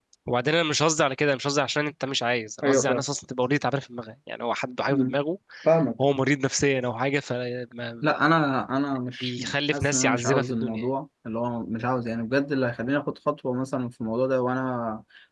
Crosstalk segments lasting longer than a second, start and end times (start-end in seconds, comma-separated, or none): 9.2-10.9